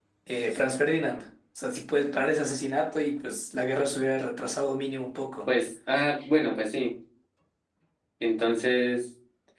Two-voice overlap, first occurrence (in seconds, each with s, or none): none